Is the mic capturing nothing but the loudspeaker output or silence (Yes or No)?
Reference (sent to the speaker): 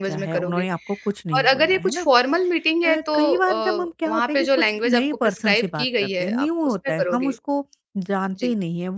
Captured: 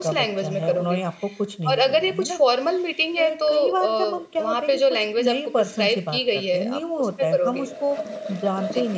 Yes